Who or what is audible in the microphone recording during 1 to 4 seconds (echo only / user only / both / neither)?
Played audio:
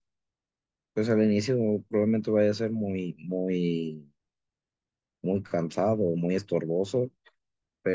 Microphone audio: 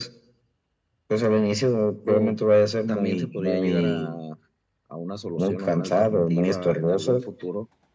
both